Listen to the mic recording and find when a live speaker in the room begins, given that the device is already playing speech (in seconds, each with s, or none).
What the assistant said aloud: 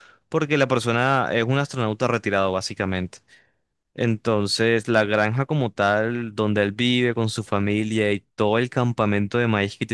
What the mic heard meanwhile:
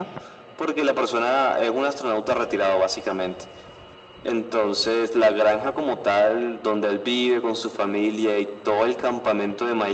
none